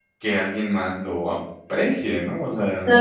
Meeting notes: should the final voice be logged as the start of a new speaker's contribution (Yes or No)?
Yes